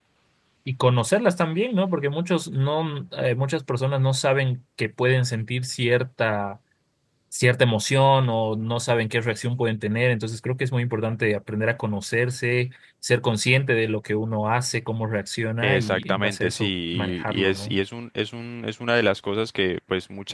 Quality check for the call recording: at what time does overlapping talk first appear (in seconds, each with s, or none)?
15.6 s